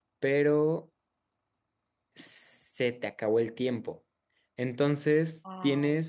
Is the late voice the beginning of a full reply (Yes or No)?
No